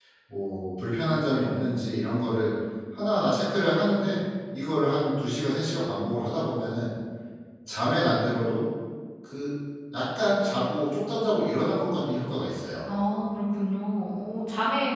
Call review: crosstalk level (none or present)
none